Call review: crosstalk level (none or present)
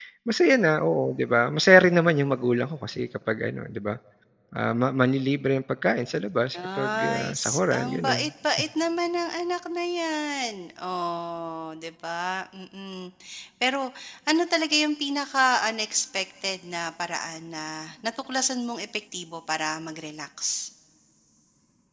present